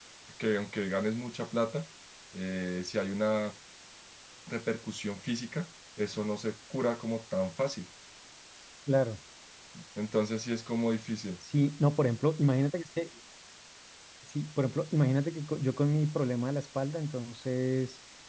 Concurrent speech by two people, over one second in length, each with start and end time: none

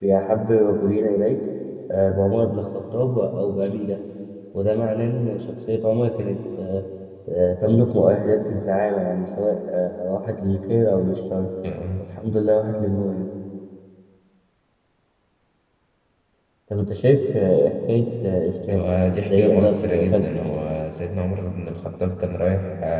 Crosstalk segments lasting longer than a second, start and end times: 18.7-20.4

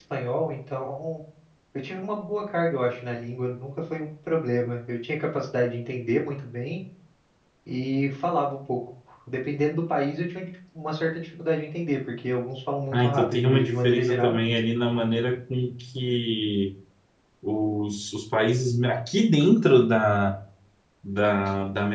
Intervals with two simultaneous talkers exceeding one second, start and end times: 12.9-14.4

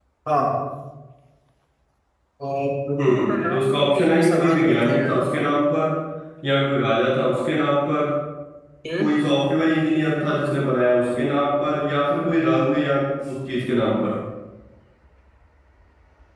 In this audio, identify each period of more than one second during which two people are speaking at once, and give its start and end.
3.1-5.3

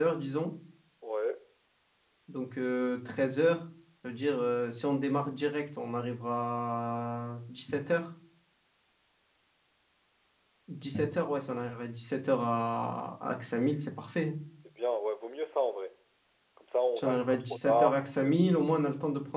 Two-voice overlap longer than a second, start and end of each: 17.0-18.4

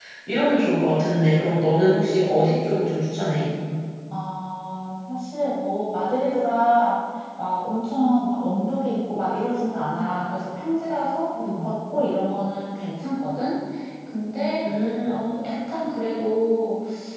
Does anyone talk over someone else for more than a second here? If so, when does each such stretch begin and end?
none

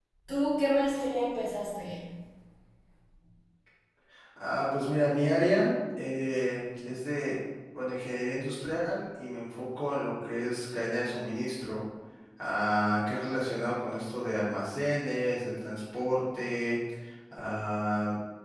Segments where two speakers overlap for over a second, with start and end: none

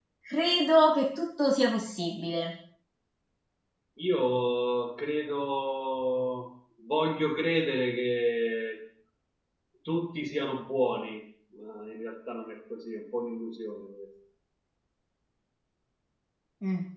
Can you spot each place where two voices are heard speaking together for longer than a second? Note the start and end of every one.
none

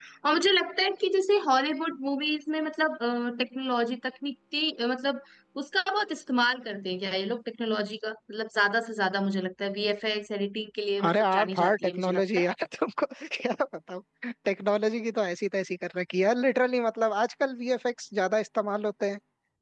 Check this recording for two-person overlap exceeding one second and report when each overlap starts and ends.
11.0-12.5

